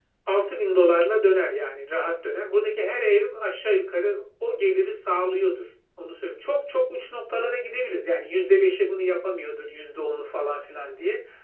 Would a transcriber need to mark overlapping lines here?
No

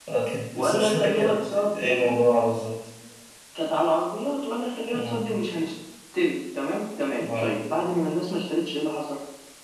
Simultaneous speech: Yes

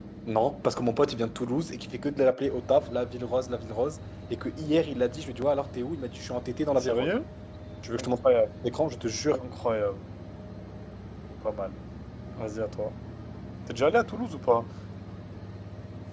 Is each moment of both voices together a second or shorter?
Yes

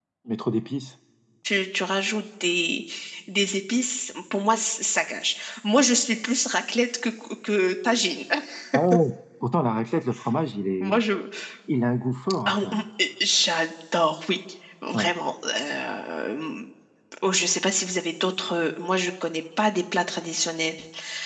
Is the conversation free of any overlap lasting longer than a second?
Yes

